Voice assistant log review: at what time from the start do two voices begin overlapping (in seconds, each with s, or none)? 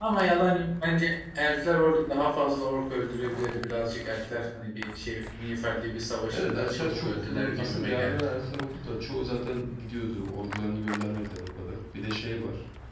6.3 s